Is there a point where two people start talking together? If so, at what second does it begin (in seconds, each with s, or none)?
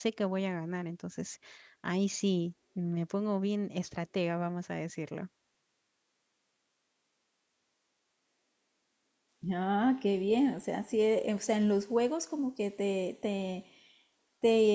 none